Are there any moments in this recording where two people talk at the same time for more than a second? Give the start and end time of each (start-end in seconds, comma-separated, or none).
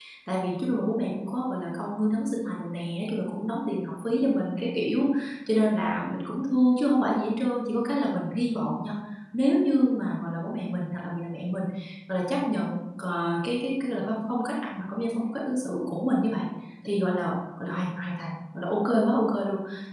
none